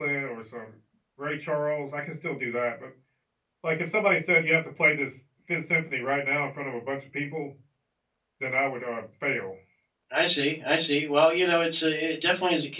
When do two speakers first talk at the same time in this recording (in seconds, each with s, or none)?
none